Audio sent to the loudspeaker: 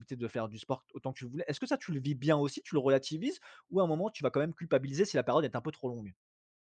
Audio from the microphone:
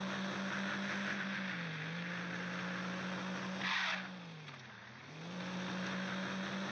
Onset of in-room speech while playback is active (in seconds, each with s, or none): none